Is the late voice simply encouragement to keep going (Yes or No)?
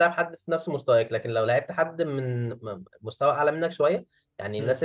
Yes